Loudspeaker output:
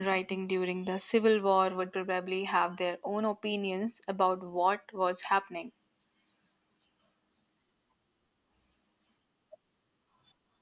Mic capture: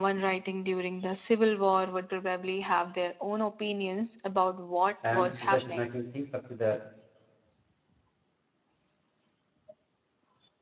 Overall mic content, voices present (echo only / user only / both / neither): both